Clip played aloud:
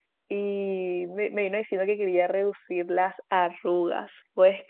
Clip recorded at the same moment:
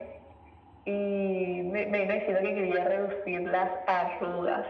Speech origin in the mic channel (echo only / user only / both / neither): echo only